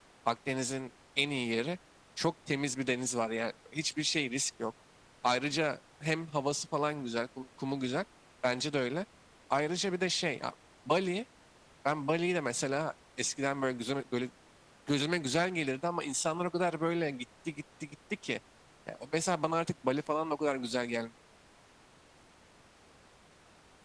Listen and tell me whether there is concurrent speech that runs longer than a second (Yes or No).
No